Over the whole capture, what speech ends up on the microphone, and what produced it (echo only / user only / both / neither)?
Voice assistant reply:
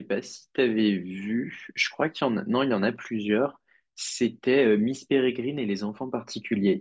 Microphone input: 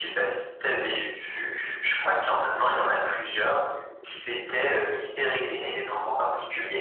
echo only